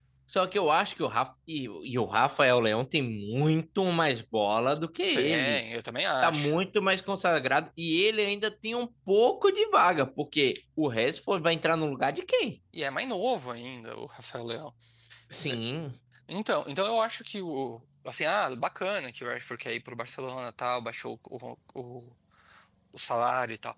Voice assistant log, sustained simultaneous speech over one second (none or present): none